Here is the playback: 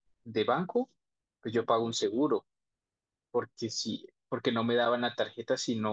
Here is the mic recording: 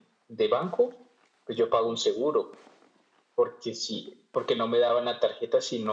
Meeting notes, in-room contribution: none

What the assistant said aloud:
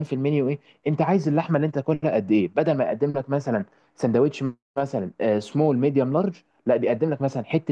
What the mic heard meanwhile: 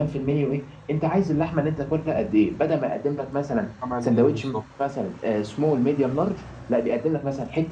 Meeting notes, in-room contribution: present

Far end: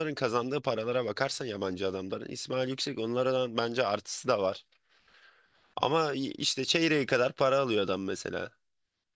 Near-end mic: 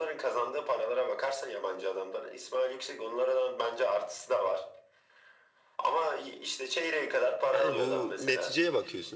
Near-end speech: present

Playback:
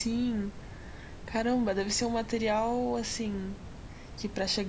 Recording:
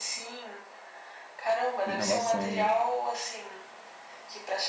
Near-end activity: present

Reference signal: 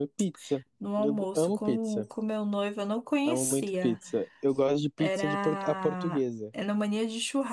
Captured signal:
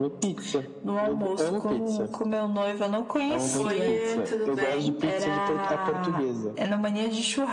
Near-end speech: present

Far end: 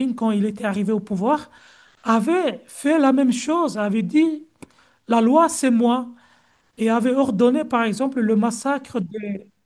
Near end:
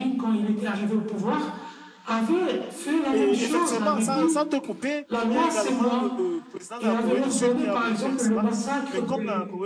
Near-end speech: present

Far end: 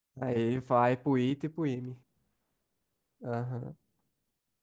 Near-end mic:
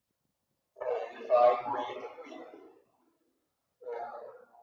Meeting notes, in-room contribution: none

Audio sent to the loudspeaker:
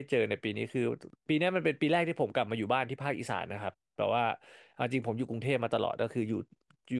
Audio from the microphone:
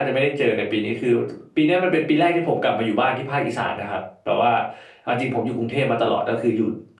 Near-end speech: none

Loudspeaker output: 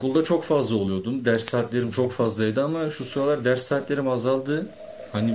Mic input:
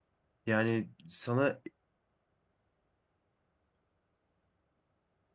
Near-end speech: present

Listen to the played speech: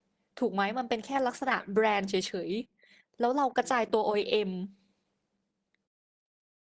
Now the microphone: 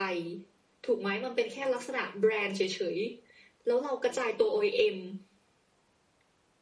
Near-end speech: none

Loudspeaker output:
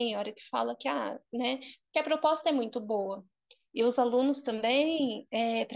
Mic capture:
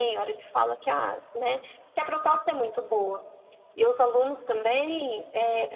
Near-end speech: none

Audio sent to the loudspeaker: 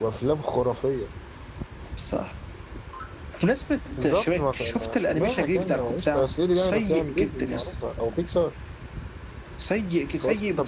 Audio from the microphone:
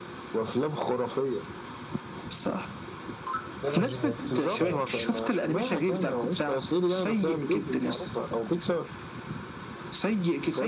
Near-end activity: present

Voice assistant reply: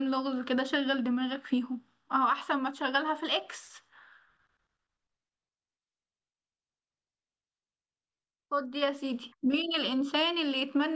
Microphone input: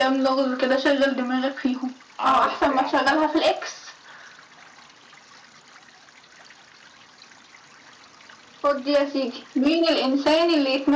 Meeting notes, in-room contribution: present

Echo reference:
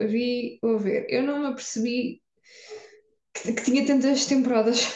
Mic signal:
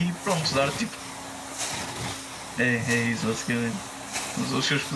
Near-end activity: present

